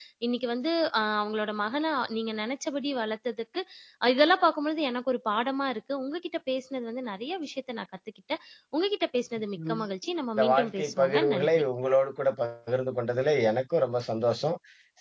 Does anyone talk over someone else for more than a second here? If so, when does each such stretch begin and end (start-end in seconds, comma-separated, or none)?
10.4-11.6